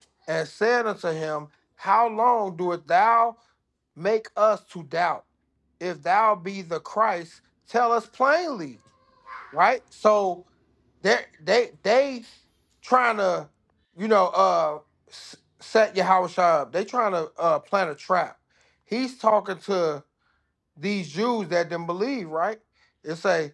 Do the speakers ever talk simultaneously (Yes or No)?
No